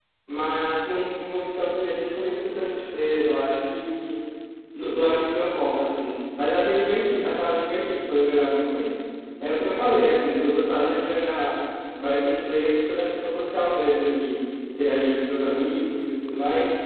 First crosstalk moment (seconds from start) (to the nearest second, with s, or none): none